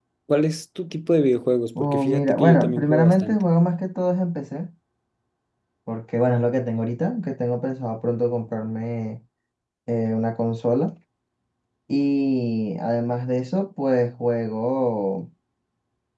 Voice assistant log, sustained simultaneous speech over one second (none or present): present